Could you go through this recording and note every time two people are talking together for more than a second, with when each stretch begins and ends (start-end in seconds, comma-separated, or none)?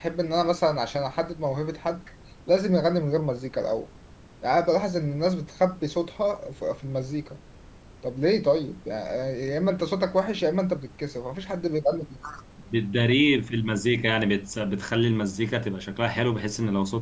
none